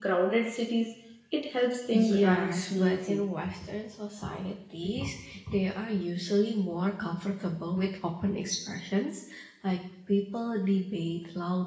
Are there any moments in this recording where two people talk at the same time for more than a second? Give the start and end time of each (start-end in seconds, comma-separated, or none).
1.9-3.3